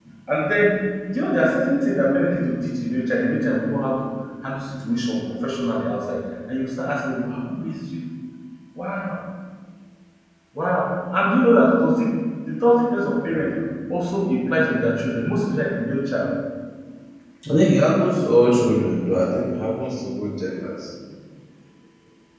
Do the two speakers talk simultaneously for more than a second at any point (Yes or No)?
No